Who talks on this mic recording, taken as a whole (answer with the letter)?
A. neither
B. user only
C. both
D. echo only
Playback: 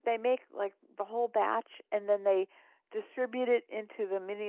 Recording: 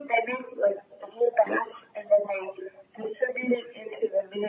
D